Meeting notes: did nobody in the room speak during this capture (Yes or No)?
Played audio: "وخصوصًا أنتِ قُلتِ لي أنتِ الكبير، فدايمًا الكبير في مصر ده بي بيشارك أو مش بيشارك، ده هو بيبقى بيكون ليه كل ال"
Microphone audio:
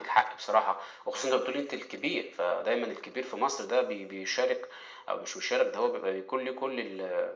Yes